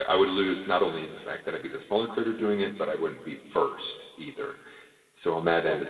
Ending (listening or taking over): listening